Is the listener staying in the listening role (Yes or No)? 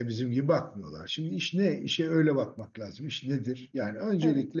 Yes